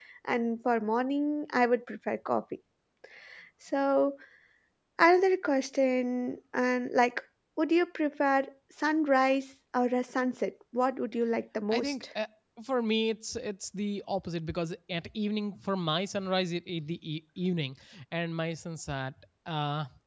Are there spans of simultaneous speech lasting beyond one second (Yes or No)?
No